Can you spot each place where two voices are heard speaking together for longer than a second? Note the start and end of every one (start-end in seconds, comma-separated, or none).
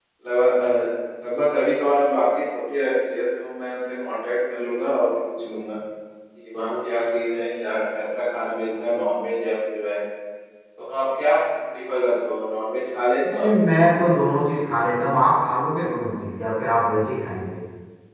none